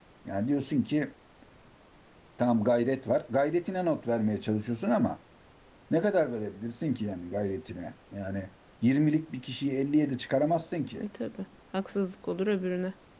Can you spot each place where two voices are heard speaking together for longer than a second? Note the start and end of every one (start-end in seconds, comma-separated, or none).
none